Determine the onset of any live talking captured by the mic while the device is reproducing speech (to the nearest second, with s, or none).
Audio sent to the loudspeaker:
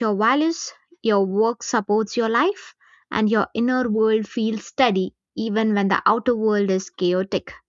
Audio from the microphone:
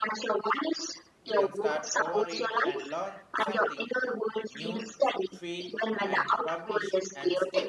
1 s